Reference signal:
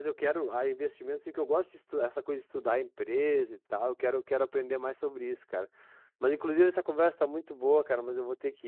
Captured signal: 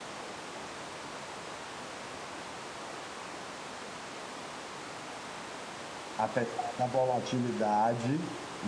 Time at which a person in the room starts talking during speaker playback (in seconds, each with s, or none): 6.2 s